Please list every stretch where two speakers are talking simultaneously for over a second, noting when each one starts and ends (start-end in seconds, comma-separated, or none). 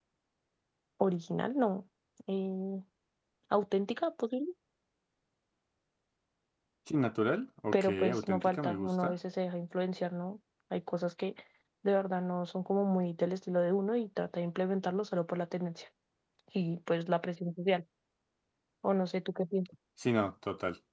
7.7-9.1